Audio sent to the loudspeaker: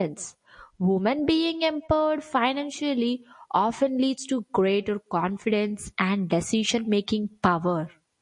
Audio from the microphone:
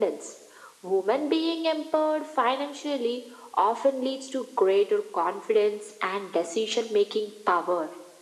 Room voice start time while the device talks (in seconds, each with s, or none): none